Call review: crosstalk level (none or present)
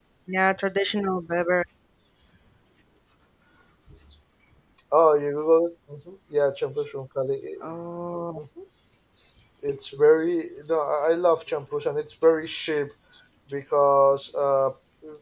none